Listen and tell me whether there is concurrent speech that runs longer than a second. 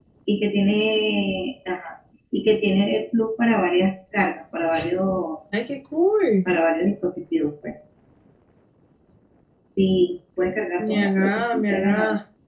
Yes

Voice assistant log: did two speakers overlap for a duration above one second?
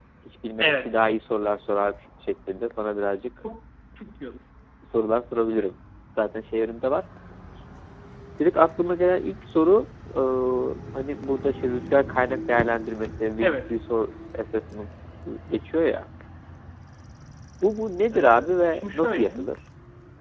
Yes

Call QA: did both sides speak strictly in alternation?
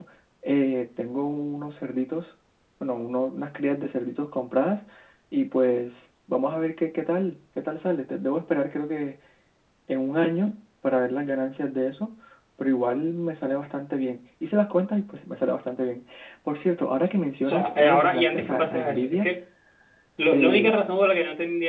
No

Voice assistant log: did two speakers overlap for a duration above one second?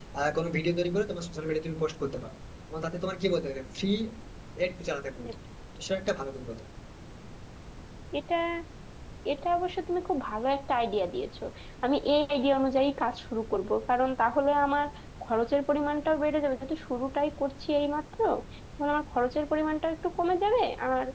No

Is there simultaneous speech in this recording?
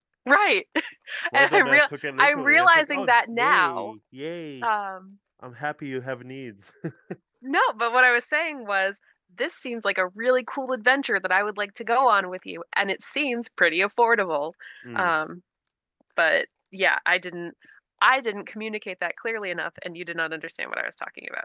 Yes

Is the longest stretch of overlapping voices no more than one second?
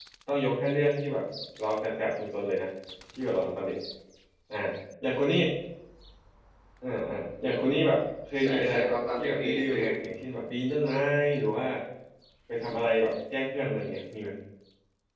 No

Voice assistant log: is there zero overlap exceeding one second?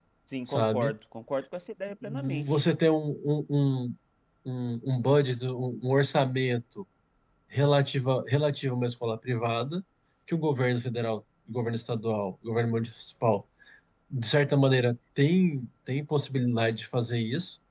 Yes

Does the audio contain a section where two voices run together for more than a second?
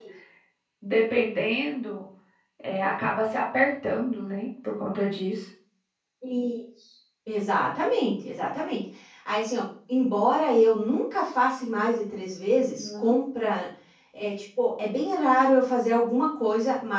No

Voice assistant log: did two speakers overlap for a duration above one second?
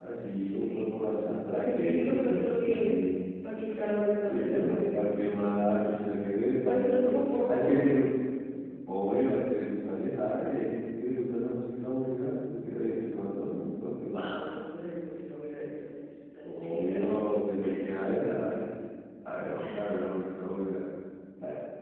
Yes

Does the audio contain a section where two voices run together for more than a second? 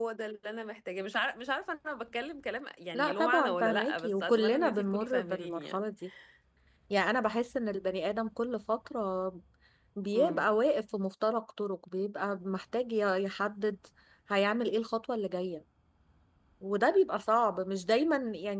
Yes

